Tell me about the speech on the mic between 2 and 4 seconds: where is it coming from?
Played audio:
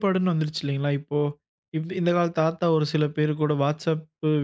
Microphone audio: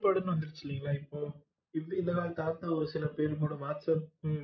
echo only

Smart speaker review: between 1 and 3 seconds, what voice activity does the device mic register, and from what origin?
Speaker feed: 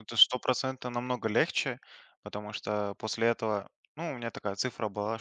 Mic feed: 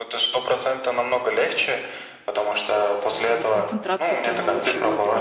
echo only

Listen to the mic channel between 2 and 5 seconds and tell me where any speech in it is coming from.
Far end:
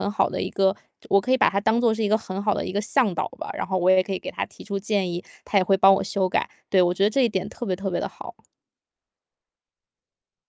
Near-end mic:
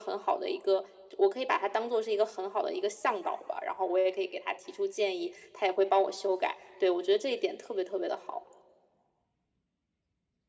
echo only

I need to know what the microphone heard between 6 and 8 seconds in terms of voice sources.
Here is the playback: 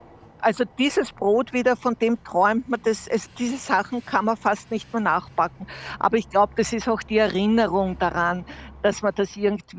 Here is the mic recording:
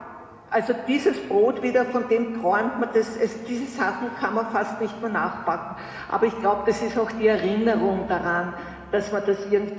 echo only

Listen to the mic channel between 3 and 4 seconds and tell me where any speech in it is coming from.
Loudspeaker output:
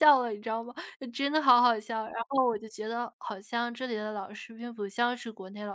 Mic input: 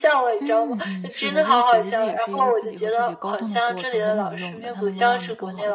both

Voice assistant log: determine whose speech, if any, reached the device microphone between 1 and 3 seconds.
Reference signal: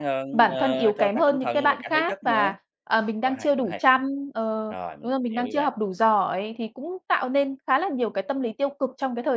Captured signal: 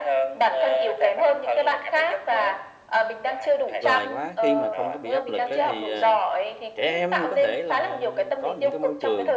echo only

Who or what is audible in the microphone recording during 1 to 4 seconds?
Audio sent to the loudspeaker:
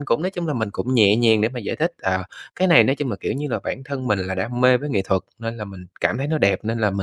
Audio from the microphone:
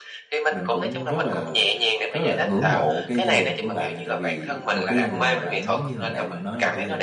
both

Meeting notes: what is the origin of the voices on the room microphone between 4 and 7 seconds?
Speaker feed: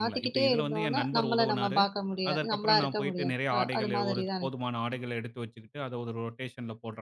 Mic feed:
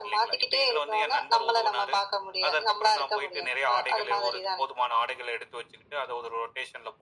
echo only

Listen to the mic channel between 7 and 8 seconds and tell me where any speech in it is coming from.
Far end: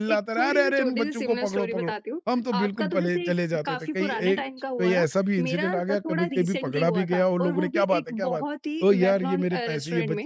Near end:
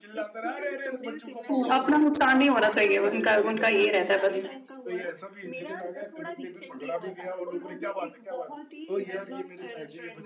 echo only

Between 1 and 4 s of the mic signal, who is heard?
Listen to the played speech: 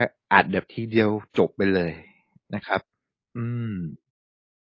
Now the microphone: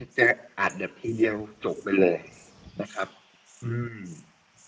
echo only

